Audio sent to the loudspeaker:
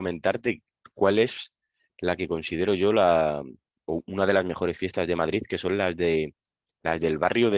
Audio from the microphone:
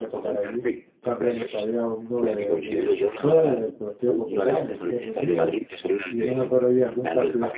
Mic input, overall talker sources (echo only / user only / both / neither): both